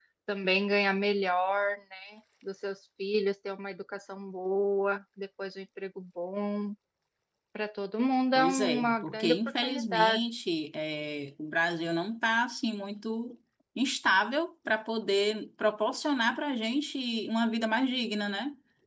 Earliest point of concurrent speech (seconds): 8.4 s

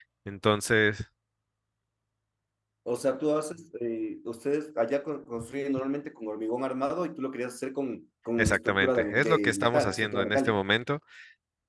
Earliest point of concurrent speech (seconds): 8.4 s

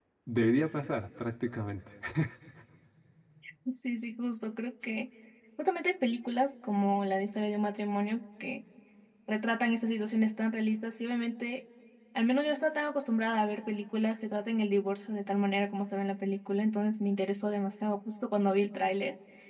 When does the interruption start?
none

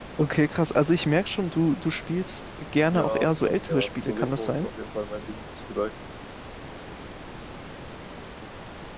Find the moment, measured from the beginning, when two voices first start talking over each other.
2.9 s

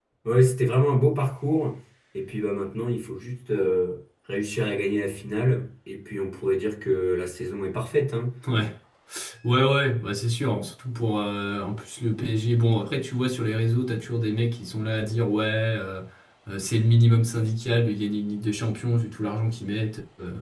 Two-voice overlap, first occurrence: none

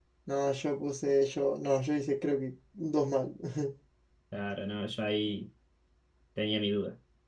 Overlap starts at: none

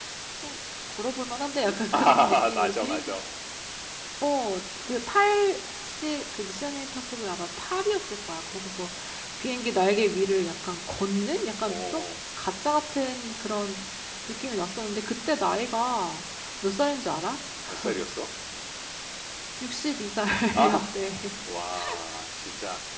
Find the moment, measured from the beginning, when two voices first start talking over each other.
1.9 s

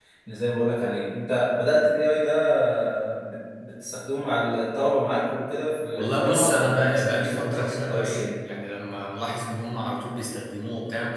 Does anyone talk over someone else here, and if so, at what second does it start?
6.0 s

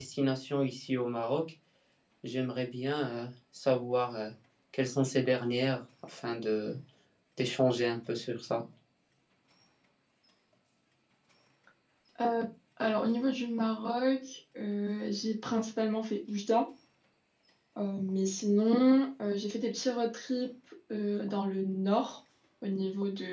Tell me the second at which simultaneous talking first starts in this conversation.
none

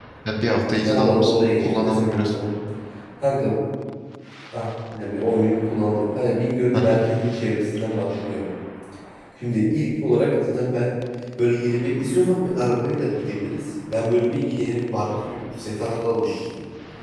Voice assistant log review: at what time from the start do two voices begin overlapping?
0.8 s

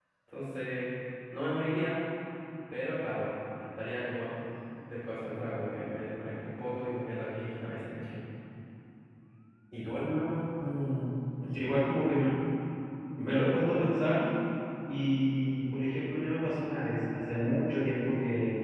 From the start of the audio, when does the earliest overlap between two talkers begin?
none

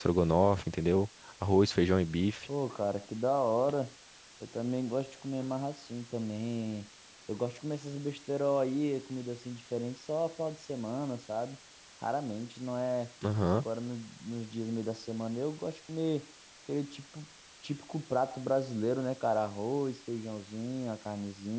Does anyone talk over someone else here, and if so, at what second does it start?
none

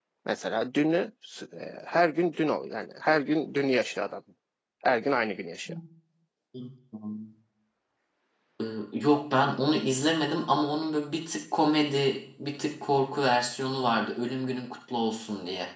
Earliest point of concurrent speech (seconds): none

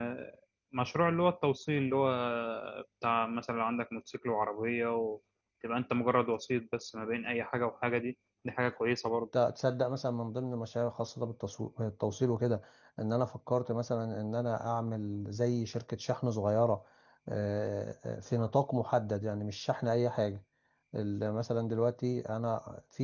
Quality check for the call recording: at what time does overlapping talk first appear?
none

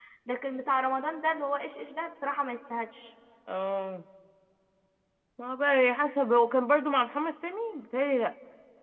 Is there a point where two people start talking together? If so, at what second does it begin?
none

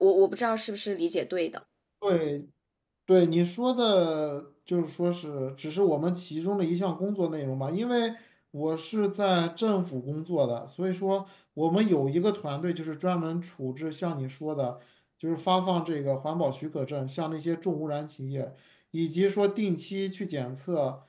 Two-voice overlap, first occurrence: none

